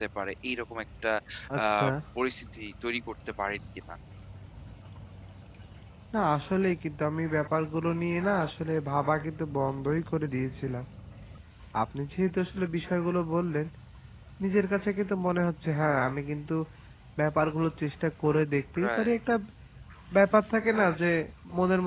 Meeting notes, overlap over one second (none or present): none